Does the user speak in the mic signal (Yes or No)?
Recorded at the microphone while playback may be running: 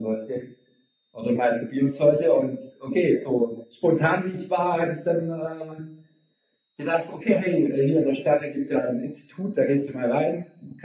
No